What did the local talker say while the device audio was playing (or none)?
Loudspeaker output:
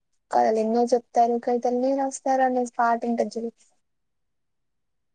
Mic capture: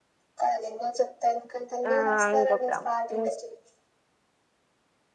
ఆ ఇంకొక